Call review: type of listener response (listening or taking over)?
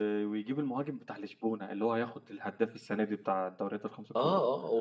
taking over